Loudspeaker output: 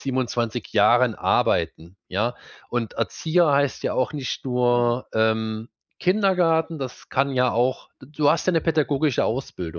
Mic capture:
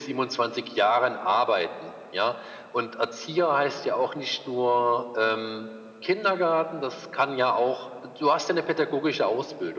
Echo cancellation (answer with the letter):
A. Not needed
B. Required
B